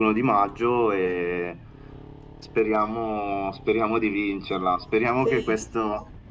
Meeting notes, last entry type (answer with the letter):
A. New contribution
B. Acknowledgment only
B